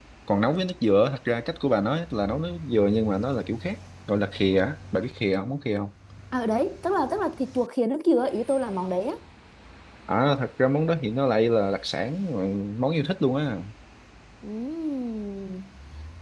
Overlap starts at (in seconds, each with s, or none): none